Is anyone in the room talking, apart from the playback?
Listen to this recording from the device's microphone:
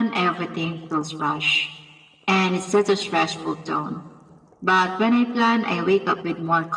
No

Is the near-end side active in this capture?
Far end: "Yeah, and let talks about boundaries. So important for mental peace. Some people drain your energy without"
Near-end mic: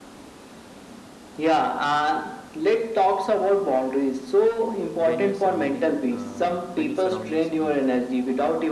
Yes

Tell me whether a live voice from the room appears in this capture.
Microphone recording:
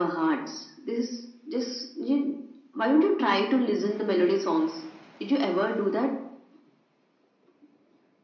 No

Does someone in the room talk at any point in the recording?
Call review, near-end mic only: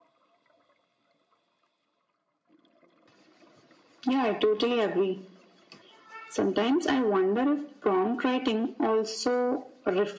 No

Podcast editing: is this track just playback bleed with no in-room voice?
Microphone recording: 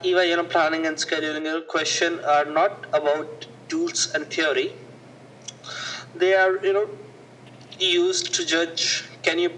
Yes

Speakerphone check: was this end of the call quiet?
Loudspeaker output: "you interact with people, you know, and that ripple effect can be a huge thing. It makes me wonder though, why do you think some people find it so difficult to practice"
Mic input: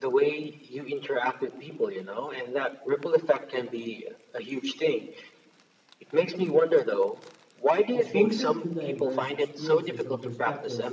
No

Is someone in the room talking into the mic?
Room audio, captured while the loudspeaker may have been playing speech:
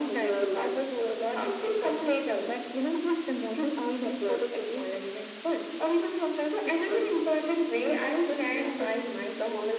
No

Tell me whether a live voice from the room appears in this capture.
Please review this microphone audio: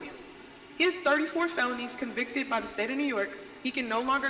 No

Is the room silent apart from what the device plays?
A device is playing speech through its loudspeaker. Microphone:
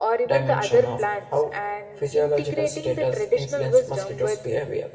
No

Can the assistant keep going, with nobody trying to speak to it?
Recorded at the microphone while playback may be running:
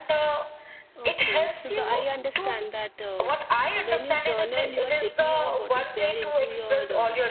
No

